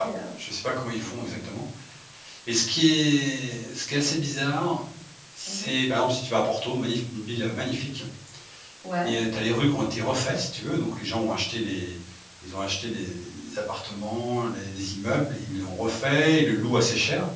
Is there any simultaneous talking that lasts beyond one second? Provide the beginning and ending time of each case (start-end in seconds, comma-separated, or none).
none